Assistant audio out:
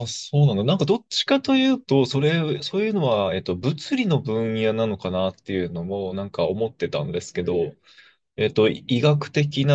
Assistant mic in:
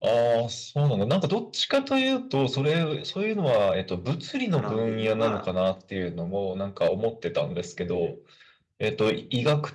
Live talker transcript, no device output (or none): 絡んでいるのが